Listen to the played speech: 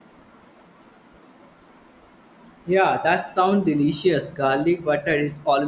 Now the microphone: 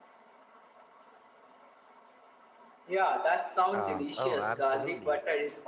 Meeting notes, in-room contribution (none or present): present